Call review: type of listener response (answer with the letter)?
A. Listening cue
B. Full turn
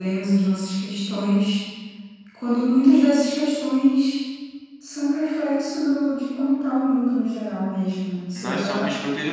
B